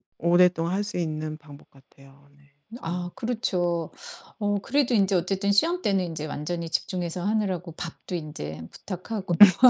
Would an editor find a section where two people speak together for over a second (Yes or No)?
No